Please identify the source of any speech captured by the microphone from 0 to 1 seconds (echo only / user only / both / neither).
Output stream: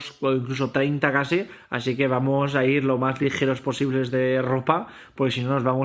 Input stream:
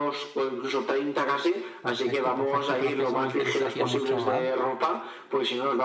echo only